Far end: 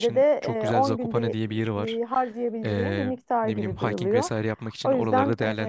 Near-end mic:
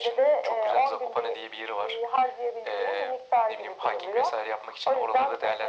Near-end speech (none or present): none